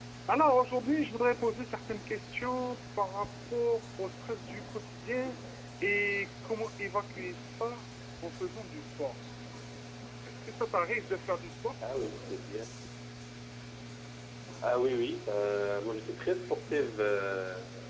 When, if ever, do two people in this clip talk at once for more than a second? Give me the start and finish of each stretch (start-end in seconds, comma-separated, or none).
none